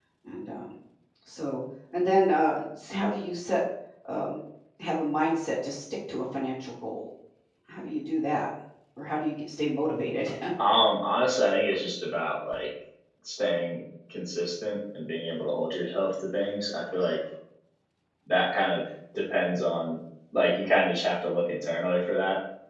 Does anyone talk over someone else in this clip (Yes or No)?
No